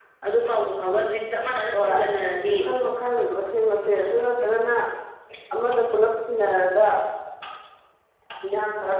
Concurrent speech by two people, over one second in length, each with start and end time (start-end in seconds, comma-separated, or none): none